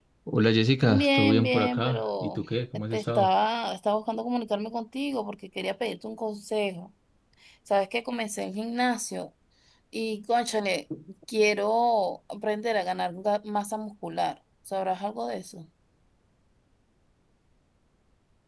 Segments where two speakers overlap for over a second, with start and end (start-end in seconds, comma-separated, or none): 0.8-2.4